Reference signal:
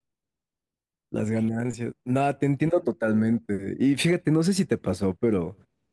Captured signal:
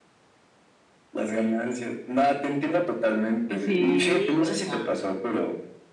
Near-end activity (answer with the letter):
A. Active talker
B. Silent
A